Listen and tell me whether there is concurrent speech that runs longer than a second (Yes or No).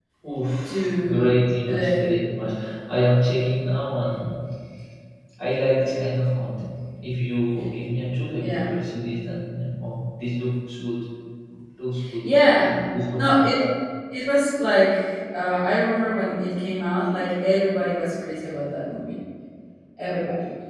Yes